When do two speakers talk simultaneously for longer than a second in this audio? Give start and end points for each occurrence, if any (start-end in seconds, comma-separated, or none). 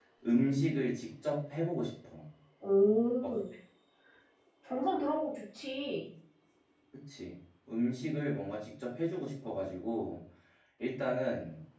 none